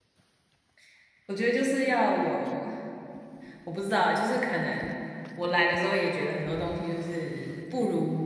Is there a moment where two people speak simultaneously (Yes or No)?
No